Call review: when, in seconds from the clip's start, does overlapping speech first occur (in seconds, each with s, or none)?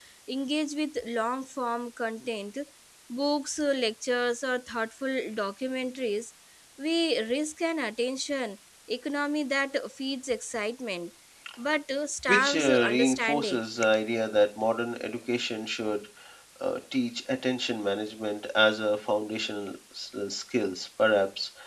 12.3 s